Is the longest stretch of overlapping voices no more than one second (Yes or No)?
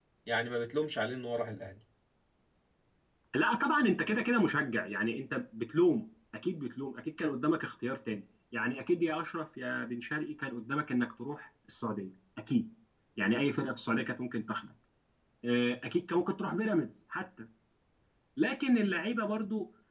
Yes